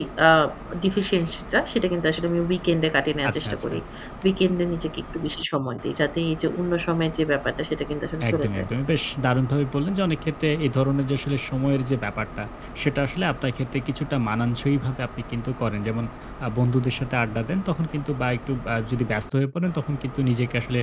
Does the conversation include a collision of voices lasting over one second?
No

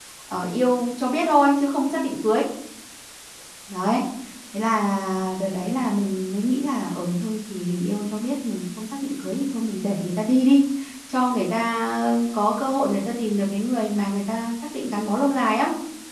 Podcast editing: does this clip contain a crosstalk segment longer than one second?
No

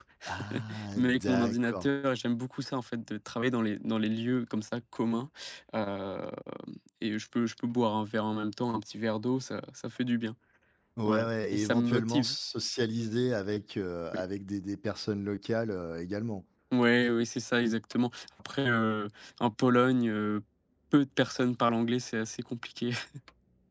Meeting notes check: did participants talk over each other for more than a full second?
Yes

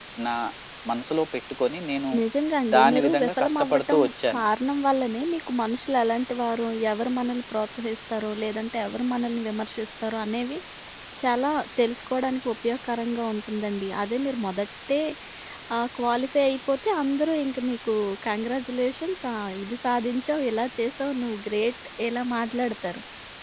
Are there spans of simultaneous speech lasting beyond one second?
Yes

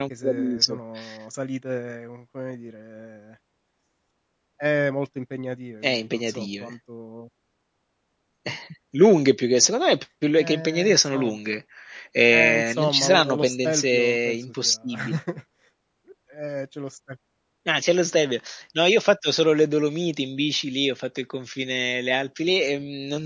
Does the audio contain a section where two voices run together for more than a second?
Yes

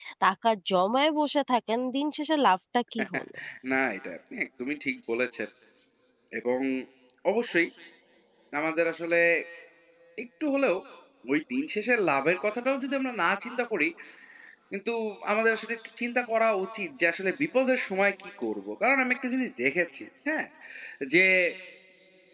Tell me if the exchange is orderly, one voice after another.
Yes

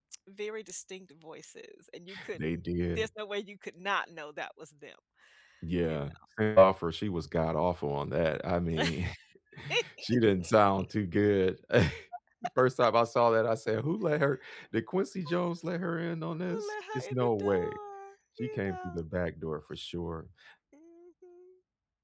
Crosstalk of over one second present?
Yes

